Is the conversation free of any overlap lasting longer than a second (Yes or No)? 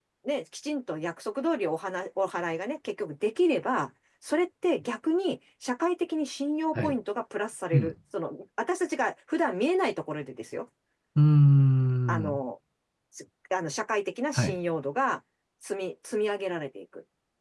Yes